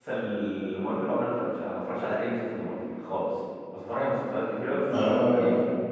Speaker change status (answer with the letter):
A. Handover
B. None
B